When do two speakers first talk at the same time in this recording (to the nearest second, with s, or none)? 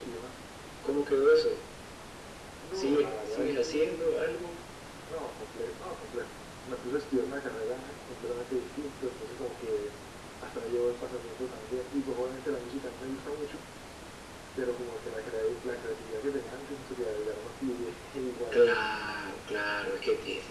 3 s